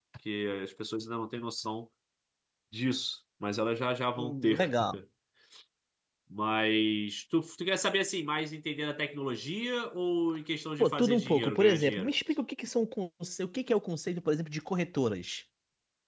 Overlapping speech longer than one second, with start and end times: 10.8-12.1

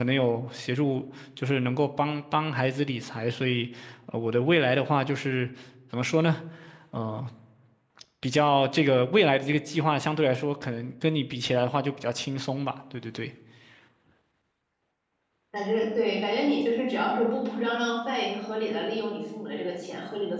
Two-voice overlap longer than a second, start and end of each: none

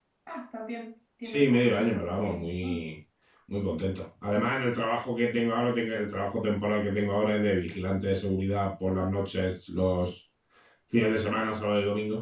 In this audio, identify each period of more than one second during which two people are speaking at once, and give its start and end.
1.2-2.9

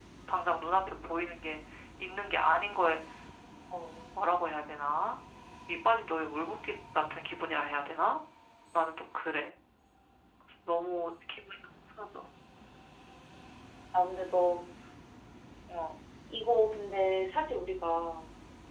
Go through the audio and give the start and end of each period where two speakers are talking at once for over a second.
none

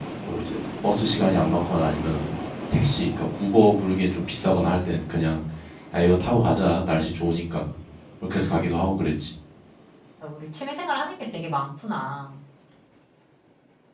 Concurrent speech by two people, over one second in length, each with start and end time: none

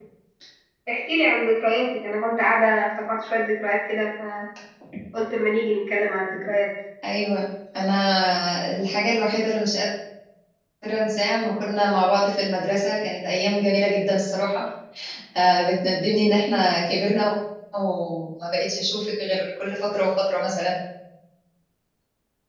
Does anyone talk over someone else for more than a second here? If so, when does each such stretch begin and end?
none

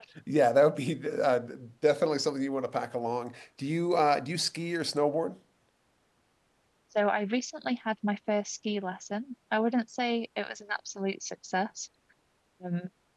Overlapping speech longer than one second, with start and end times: none

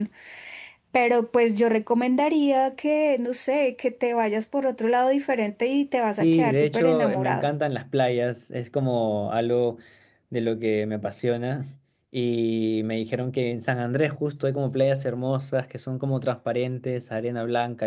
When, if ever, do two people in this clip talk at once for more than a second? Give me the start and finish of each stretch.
6.2-7.5

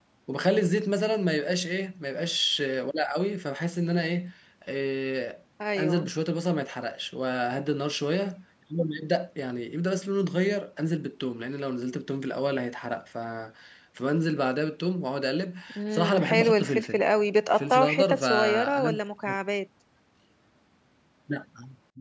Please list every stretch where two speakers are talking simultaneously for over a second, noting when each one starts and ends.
15.8-17.0, 17.6-19.0

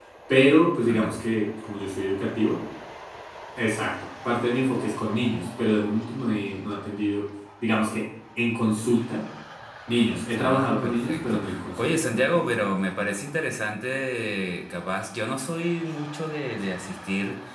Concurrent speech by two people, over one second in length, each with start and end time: 10.1-12.0

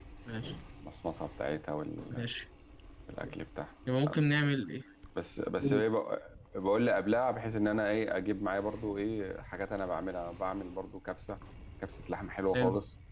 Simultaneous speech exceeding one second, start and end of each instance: none

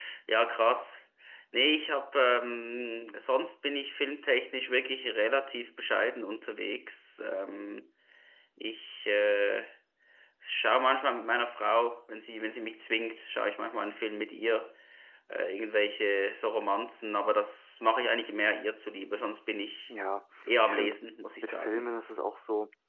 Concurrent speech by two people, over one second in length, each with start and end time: none

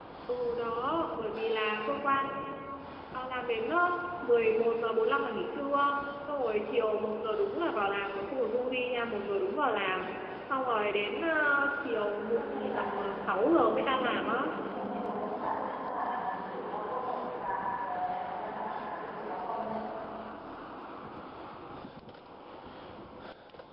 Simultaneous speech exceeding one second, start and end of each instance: 12.3-14.5

